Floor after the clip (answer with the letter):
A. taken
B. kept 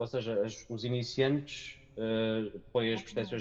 B